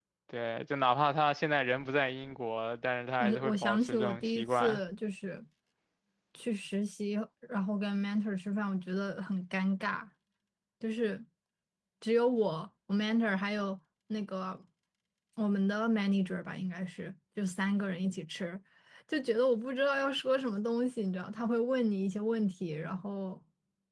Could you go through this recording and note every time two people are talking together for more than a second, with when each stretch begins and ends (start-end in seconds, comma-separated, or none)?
3.2-4.8